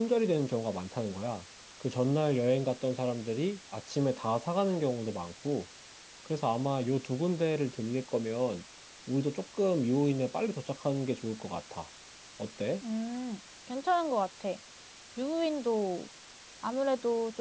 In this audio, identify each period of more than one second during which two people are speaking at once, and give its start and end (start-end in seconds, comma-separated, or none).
none